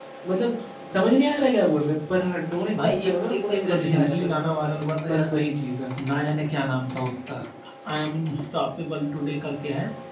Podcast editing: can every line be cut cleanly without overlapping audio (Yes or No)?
No